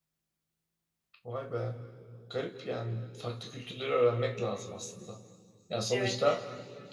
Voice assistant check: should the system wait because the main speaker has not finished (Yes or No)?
Yes